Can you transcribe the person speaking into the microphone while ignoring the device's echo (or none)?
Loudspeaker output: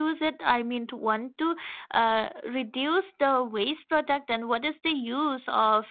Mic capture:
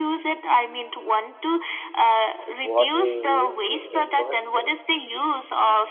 what we use in the first place.